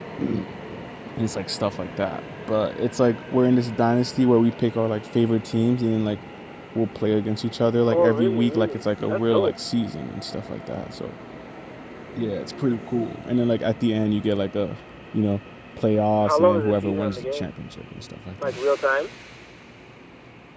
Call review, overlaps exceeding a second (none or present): present